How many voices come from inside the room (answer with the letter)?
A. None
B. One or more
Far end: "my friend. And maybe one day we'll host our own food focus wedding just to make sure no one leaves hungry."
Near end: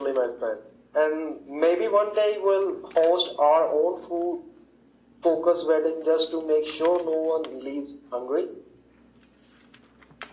A